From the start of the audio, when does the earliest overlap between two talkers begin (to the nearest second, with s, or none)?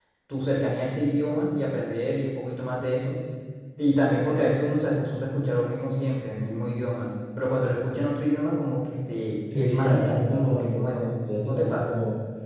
10 s